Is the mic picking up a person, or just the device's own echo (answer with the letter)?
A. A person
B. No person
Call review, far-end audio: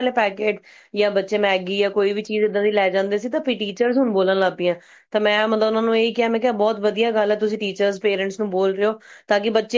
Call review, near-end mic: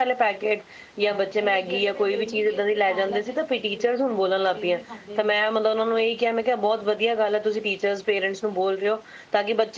A